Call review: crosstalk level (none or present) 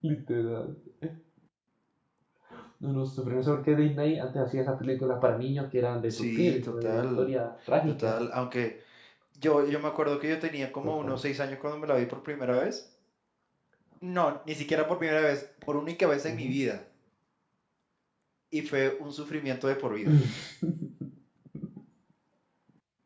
present